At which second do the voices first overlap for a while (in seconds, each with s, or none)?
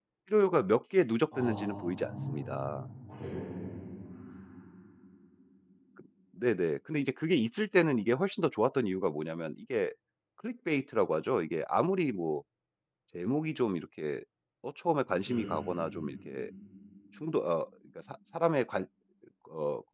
1.3 s